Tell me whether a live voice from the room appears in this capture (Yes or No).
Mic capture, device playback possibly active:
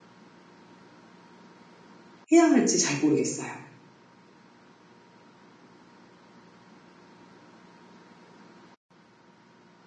Yes